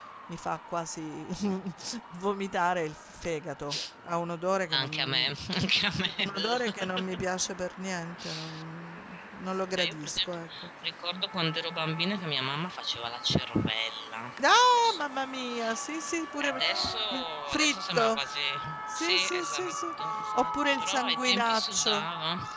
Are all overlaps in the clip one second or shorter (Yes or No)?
No